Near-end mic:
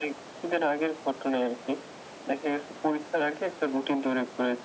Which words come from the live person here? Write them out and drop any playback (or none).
none